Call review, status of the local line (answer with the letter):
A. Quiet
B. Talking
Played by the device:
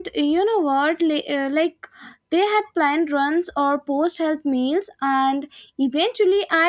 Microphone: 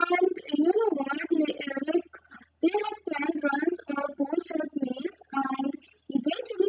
A